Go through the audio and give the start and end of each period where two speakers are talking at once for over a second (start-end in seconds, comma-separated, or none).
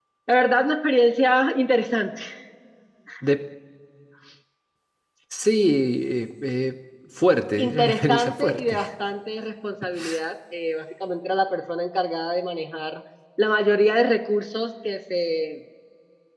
7.6-8.8